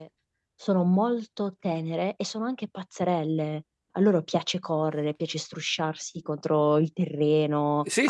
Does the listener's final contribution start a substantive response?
No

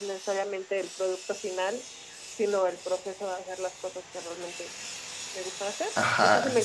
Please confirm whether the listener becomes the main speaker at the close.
Yes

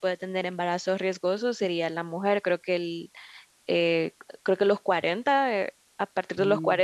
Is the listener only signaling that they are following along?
Yes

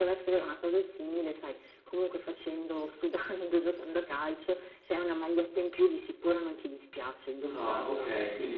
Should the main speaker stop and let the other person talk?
Yes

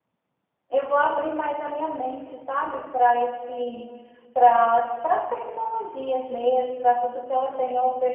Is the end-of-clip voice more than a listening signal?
No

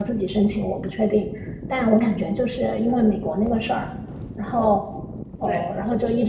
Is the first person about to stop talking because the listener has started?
No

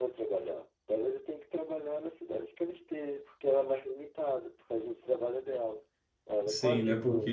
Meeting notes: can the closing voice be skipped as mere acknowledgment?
No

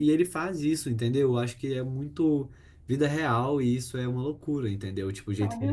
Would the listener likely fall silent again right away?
No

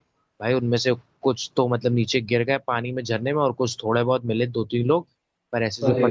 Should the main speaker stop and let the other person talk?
No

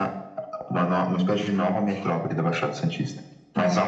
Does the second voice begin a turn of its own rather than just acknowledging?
No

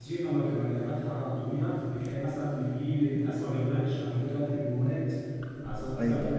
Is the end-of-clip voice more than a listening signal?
No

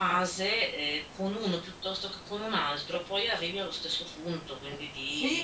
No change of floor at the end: No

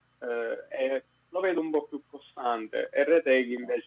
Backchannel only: Yes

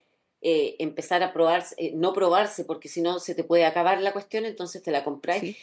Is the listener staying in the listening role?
Yes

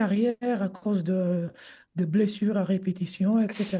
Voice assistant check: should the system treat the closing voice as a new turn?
No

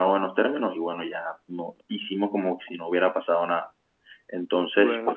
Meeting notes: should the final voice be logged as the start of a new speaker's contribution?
No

